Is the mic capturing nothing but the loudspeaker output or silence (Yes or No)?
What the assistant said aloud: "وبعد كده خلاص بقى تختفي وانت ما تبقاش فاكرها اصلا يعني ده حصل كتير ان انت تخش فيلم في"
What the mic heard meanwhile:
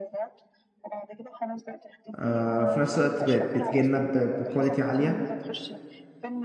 No